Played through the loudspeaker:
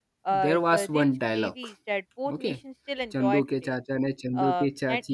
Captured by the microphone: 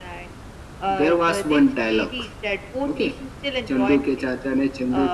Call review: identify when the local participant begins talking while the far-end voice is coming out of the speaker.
none

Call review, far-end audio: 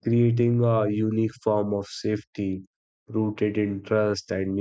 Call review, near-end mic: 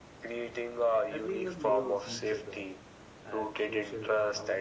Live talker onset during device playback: 1.1 s

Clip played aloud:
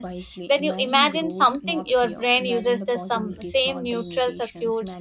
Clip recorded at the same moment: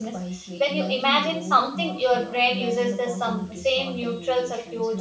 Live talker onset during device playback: none

